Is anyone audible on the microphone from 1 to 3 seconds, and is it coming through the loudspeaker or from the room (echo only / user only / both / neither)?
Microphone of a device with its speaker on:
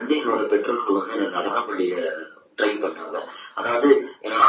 echo only